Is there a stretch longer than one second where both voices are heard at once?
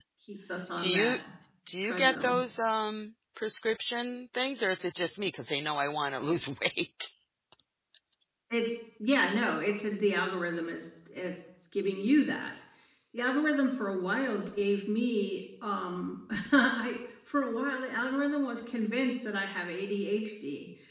No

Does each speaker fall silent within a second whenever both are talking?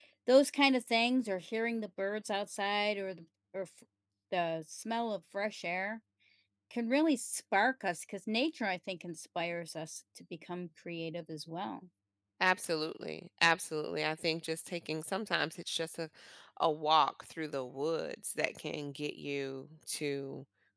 Yes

